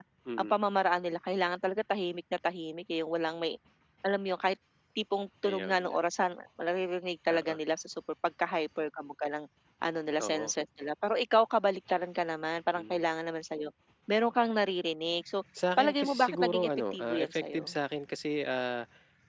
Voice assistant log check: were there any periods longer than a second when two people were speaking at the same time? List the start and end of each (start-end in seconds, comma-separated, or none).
15.8-17.8